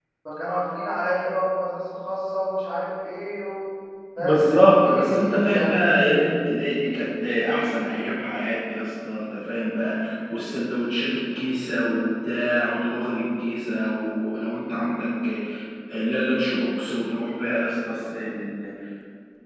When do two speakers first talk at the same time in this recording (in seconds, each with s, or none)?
4.2 s